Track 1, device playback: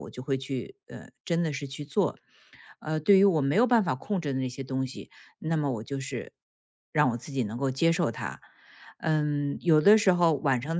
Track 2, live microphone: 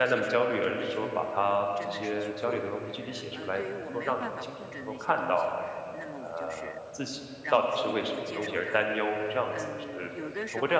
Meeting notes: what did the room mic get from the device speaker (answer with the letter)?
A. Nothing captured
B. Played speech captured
B